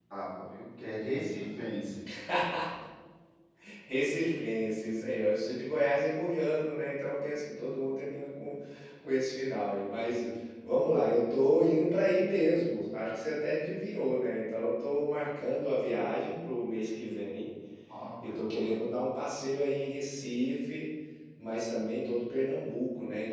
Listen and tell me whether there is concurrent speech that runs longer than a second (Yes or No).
No